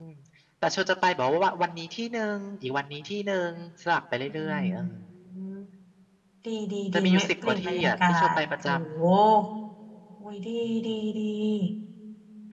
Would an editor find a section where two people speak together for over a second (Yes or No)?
Yes